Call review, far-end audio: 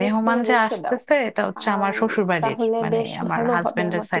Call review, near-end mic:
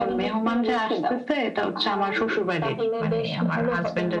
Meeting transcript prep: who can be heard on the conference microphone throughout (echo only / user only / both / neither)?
echo only